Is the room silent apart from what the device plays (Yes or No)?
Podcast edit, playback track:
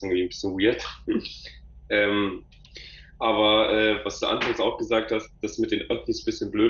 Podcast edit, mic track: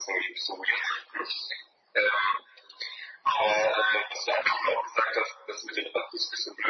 Yes